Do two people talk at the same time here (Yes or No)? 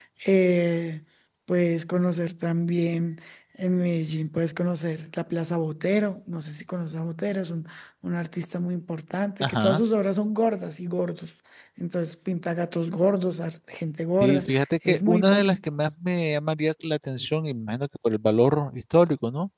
Yes